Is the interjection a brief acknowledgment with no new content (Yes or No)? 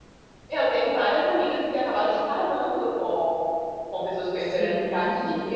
Yes